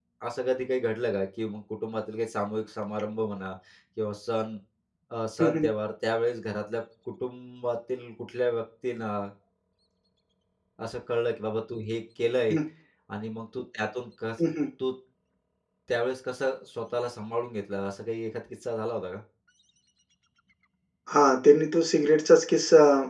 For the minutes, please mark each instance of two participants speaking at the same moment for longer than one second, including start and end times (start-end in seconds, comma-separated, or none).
none